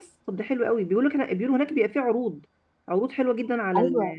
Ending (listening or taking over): taking over